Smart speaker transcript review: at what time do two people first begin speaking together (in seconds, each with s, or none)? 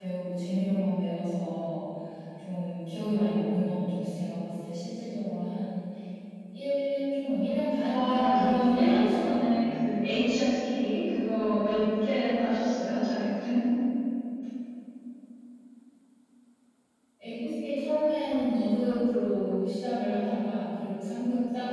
7.9 s